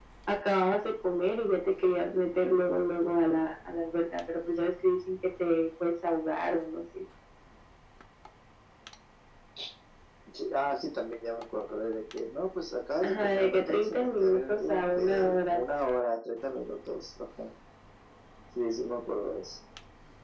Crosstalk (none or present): present